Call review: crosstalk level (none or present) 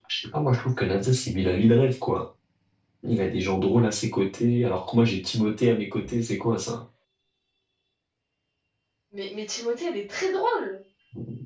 none